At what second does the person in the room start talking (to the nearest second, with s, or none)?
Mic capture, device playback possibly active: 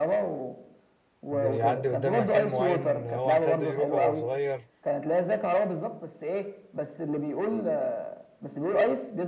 1 s